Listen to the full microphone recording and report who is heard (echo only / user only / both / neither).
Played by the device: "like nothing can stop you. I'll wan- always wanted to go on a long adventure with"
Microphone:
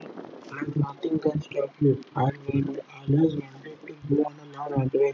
echo only